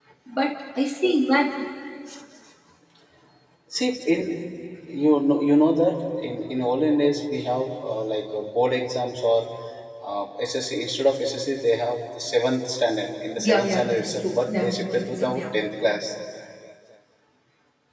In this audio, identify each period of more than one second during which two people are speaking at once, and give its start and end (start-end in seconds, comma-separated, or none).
13.4-15.4